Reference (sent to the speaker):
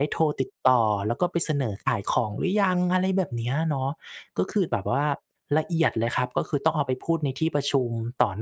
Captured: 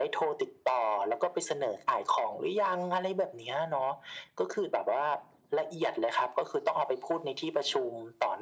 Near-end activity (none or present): none